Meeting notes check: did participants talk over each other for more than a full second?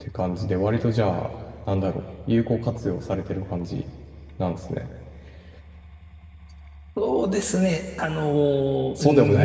No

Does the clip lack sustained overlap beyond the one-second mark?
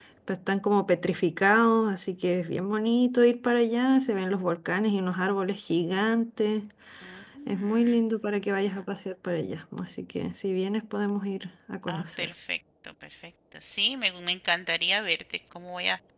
Yes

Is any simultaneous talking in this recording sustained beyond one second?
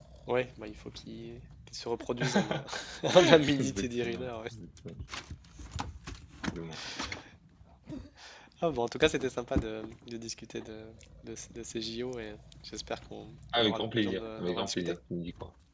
Yes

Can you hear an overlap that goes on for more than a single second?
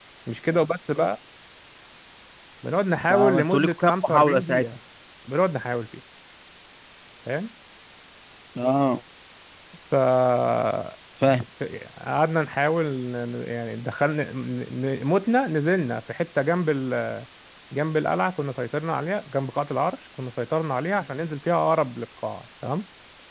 Yes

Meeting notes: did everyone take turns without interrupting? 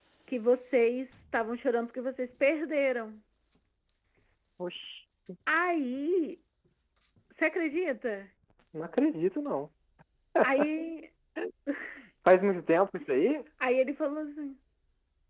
Yes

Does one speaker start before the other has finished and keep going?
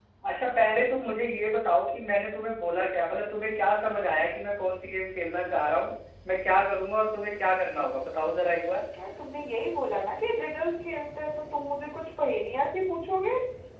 No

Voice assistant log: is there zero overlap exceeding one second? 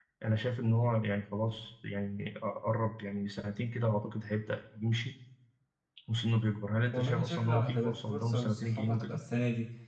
No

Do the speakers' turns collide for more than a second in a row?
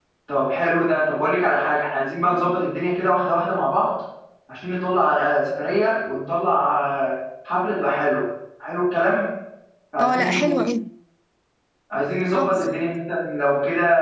No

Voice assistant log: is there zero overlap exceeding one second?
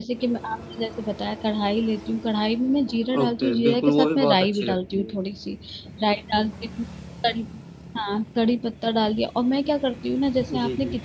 No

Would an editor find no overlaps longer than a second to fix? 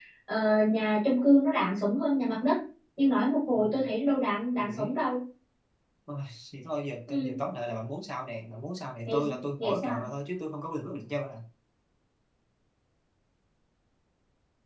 Yes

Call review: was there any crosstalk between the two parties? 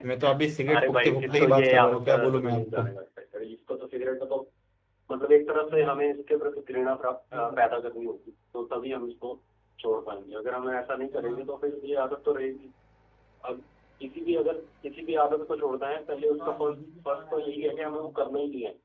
Yes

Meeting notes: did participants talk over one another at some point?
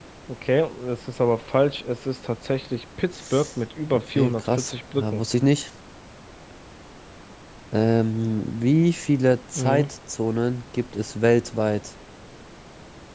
Yes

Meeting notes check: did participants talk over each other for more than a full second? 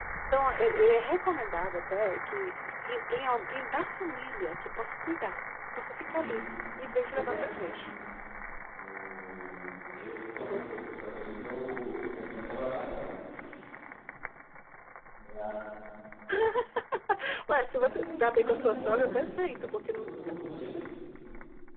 Yes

